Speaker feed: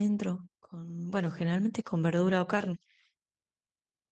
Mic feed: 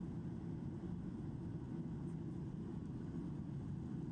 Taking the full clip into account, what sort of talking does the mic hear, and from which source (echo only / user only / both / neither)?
neither